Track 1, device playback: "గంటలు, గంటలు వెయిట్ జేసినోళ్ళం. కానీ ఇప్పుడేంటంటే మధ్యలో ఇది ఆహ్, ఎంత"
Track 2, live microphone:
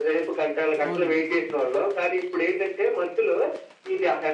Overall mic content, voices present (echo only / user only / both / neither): both